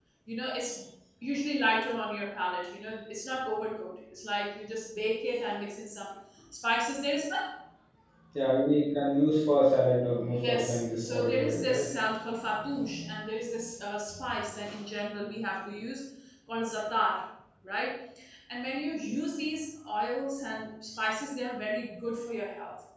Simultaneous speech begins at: 10.3 s

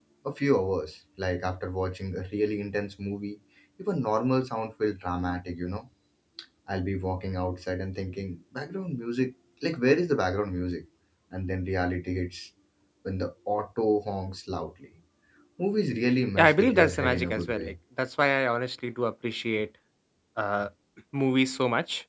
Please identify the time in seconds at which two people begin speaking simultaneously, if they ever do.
16.4 s

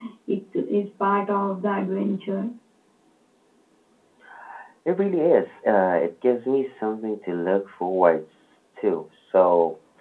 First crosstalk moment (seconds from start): none

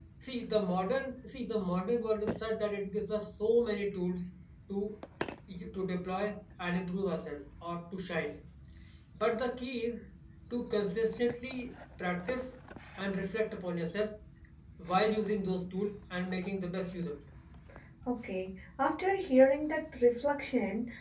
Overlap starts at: none

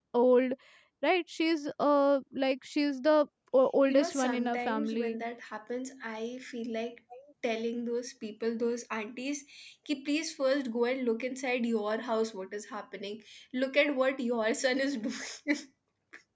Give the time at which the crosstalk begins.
3.9 s

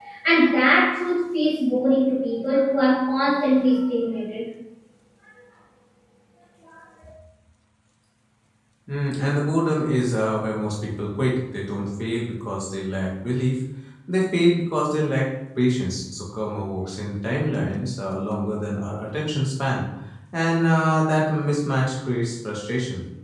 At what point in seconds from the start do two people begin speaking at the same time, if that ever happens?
none

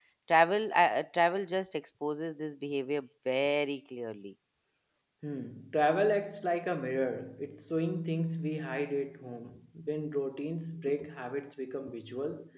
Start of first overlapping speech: none

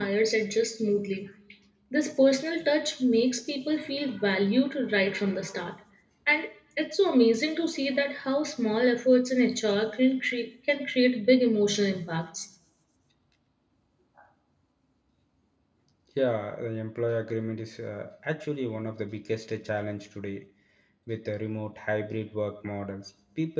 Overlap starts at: none

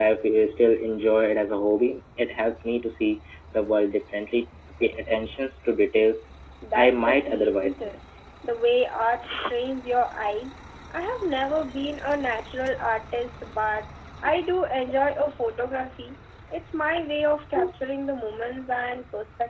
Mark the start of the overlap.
6.8 s

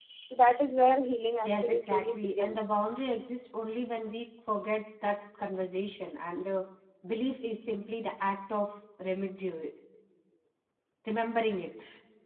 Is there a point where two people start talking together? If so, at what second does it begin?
1.4 s

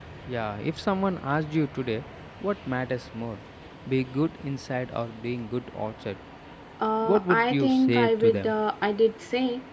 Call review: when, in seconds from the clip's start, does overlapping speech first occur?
7.0 s

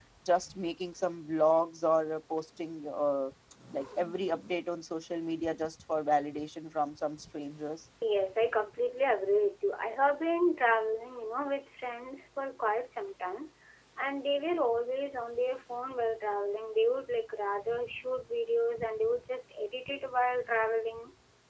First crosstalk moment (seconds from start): none

